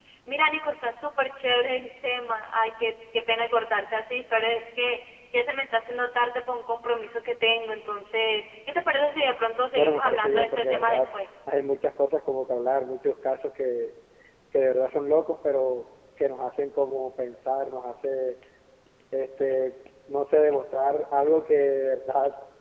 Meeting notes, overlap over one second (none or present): present